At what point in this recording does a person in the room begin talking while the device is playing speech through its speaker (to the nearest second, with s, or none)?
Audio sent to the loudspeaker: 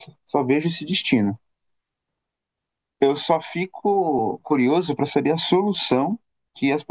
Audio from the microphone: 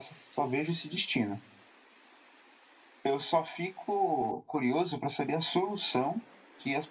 none